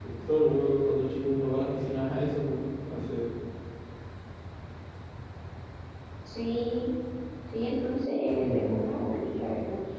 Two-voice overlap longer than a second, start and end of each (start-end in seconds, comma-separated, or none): none